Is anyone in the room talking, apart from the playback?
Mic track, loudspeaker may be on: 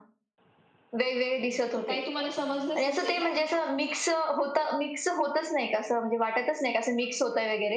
Yes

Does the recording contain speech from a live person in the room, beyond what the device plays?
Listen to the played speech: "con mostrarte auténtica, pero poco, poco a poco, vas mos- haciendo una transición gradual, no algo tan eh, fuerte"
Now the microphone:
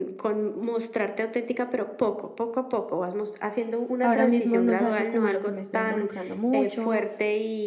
Yes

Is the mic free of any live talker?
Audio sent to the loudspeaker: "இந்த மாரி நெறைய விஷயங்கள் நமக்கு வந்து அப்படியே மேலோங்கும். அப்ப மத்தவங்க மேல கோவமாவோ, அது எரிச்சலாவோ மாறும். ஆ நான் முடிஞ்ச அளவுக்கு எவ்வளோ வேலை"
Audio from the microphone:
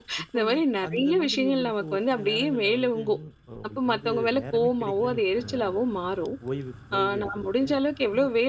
No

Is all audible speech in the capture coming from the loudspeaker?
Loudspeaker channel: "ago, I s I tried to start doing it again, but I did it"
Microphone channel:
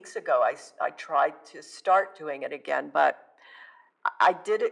Yes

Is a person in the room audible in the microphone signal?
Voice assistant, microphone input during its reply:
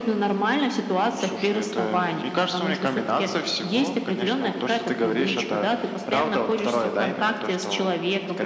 No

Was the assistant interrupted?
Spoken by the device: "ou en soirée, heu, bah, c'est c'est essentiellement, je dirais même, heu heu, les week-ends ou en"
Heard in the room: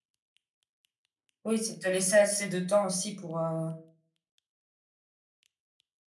Yes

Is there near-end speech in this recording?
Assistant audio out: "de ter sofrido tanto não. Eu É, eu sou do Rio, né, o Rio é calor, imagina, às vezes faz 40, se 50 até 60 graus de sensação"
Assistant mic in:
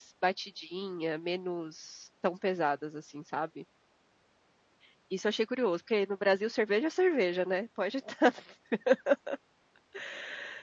Yes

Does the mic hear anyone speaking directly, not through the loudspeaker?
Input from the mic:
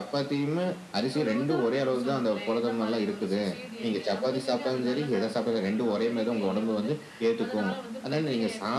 Yes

